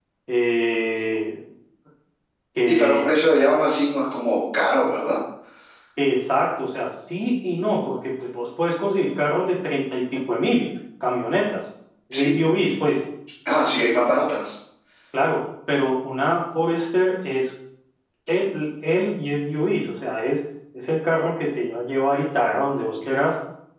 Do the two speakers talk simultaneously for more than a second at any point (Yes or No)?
No